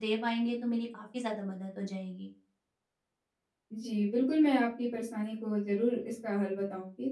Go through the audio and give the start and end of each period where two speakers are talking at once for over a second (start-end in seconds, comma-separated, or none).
none